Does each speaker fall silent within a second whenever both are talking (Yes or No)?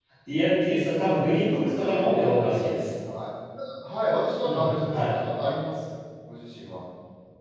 No